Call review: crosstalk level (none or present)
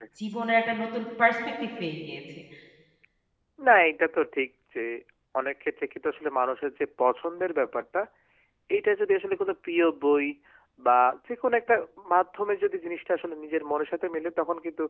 none